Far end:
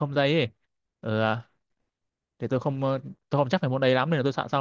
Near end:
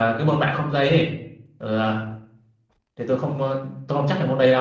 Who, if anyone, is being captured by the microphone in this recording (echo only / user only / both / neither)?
echo only